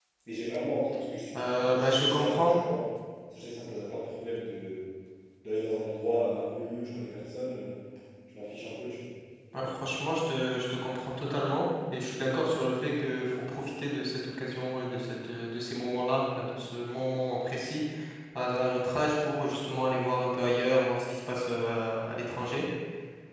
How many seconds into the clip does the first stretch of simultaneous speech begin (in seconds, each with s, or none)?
1.3 s